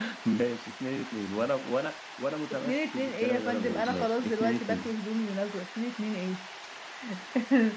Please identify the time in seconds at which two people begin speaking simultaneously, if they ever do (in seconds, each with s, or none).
2.5 s